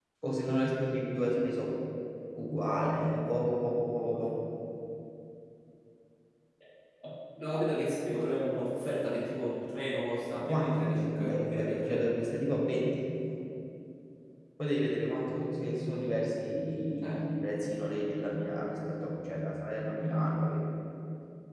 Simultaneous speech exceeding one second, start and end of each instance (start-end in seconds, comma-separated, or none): 10.3-12.1